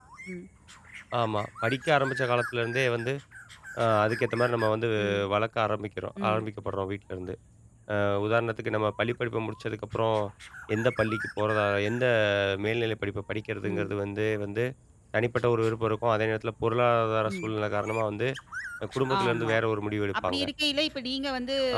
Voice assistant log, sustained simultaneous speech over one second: none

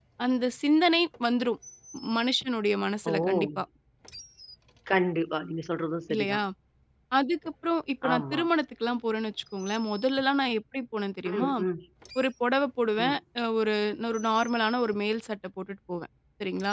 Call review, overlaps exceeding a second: none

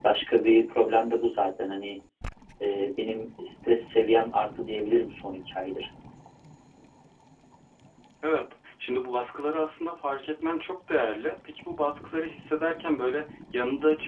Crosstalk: none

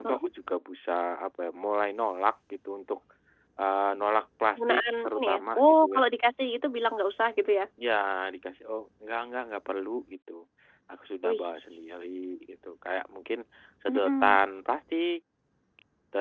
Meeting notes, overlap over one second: present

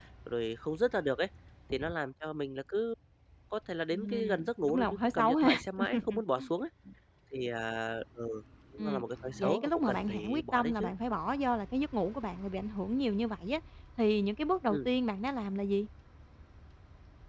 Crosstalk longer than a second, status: present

